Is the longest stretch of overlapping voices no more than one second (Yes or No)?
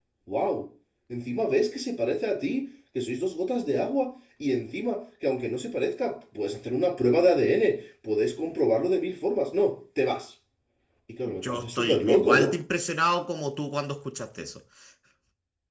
No